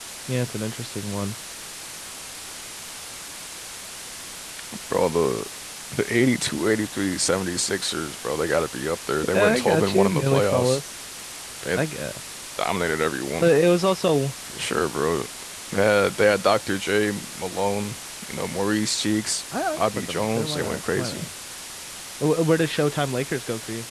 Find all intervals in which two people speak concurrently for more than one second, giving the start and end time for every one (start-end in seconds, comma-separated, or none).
9.3-10.8, 19.7-21.3